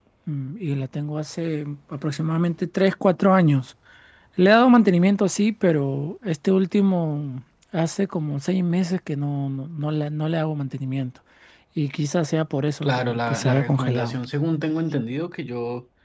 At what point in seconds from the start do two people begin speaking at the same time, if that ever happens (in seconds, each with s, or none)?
12.8 s